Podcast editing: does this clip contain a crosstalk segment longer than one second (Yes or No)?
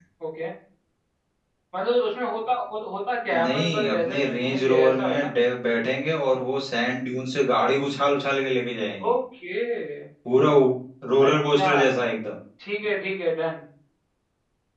Yes